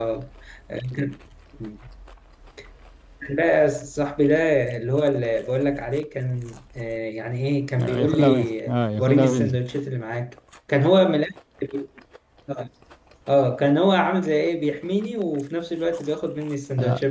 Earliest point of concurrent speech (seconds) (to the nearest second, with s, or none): 8 s